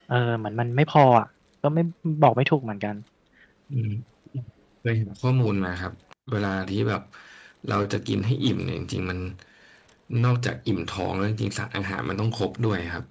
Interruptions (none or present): none